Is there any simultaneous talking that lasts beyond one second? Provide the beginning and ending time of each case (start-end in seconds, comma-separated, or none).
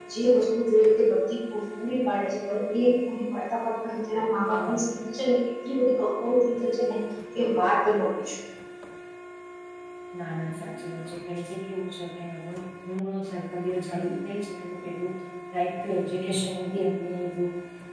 none